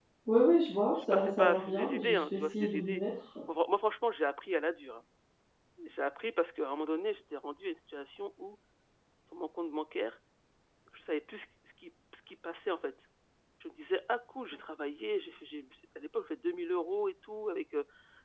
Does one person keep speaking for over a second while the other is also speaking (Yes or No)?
Yes